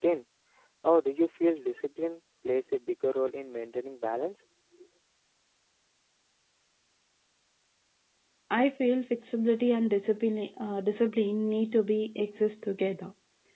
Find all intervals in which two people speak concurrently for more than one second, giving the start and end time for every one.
none

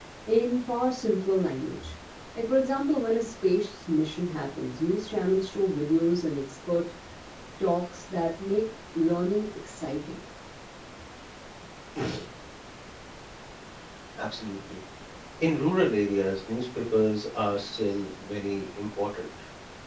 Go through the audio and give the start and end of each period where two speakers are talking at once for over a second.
none

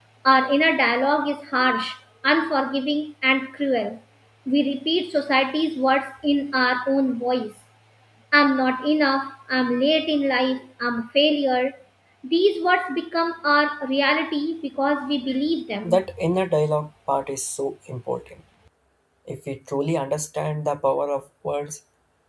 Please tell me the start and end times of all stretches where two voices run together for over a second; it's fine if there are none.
none

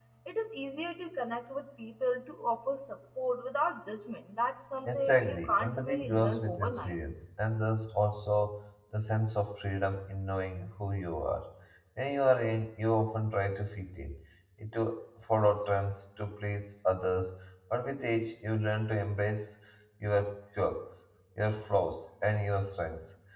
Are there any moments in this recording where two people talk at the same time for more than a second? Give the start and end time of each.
4.9-6.9

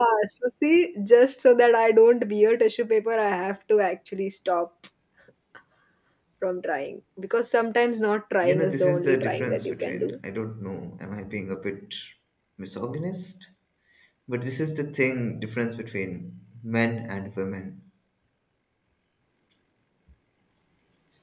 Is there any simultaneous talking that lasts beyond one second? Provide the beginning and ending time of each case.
8.4-10.2

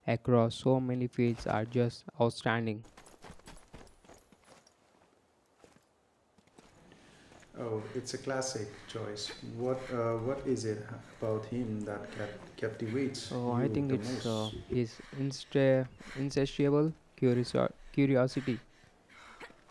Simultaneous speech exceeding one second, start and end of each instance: 13.3-14.5

